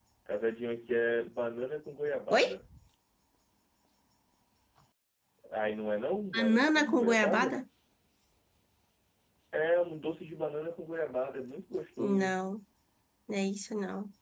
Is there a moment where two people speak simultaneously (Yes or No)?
Yes